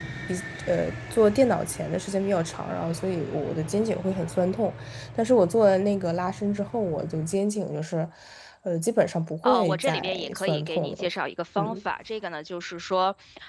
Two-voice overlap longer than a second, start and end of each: 9.4-11.1

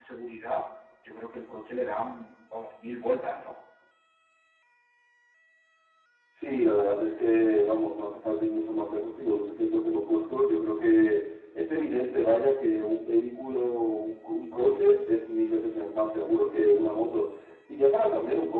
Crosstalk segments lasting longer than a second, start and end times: none

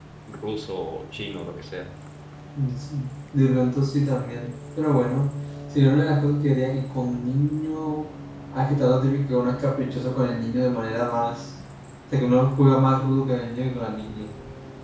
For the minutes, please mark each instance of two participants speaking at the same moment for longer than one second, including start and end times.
none

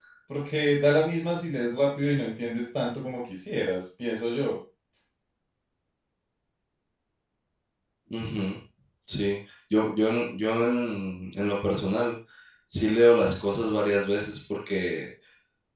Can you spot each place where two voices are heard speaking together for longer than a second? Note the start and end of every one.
none

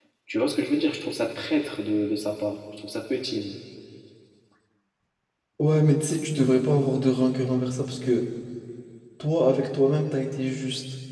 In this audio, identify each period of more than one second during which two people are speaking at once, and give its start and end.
none

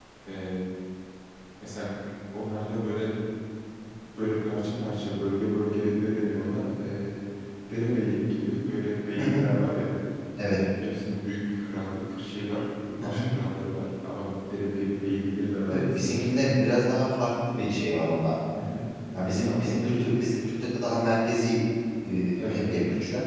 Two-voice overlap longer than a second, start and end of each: none

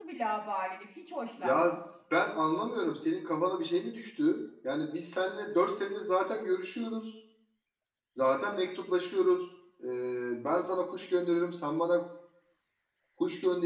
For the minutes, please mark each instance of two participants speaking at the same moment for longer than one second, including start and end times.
none

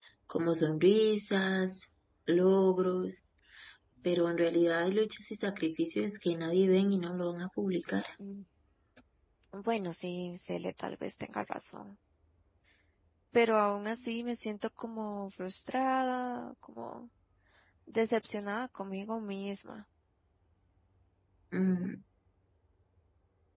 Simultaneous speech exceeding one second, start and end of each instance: none

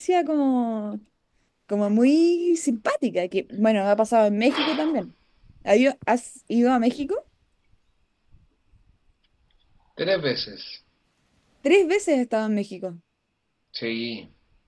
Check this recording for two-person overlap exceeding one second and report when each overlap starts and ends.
none

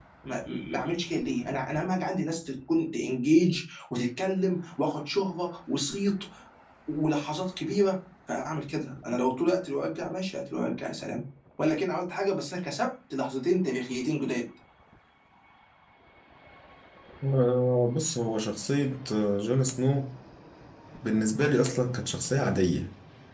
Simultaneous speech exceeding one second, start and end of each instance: none

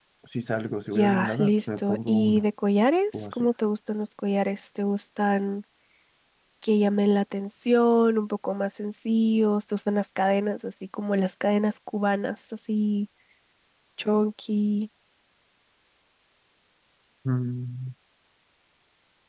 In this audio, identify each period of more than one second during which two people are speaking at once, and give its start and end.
1.0-2.4

